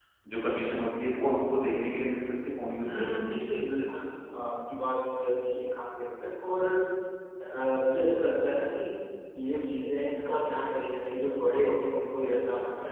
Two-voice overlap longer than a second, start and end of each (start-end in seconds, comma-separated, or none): none